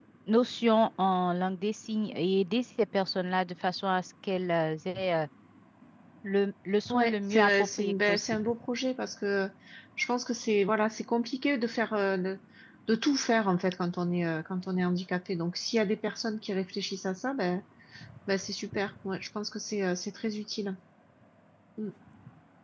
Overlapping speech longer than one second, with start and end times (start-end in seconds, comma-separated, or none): 6.9-8.4